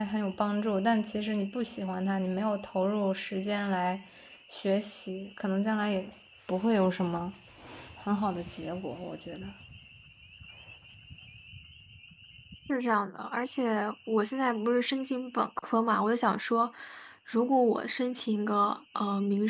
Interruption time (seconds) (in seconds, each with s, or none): none